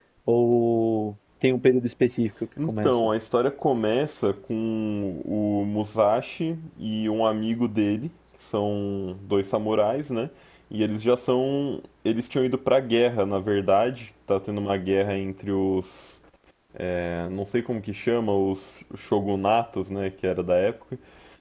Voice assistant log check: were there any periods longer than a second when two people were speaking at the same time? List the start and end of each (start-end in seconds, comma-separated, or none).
none